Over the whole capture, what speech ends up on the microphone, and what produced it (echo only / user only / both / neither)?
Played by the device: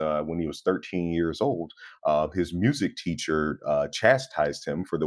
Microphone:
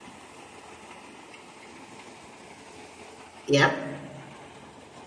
user only